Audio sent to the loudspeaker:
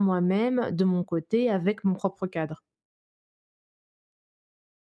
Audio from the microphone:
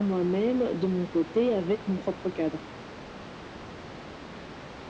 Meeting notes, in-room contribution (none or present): none